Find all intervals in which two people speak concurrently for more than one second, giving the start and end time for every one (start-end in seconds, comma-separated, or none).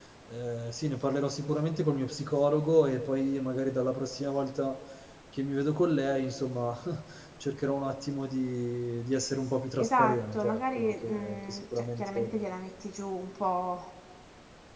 9.8-12.4